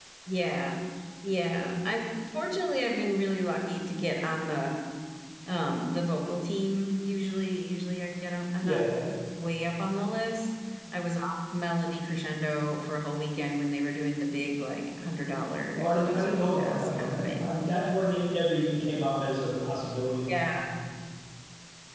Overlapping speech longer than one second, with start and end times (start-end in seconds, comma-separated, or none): 15.8-17.5